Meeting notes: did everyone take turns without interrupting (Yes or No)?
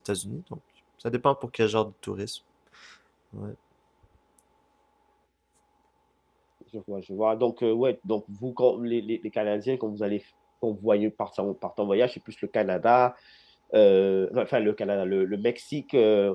Yes